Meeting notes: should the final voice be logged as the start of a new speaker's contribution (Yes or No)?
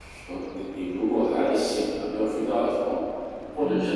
No